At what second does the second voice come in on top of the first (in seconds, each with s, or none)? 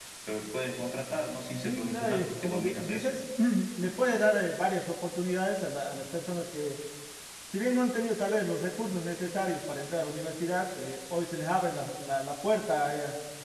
1.6 s